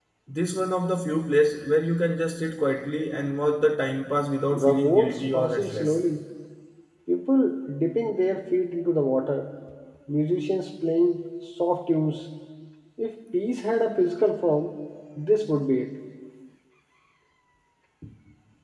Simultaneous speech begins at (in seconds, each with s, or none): 4.5 s